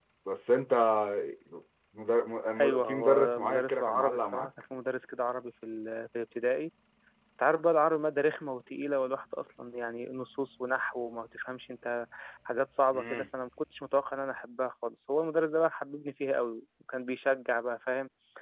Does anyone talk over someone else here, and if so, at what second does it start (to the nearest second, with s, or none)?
3 s